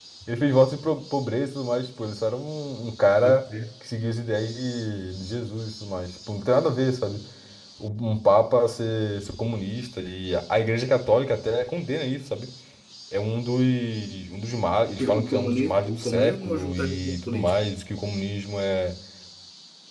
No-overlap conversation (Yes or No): No